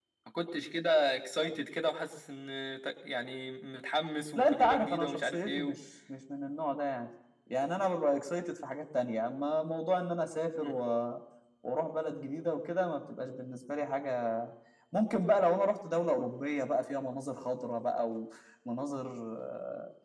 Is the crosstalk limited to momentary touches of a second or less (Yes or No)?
No